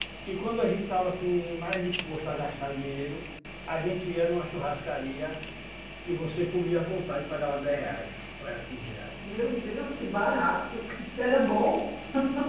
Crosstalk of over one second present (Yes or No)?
No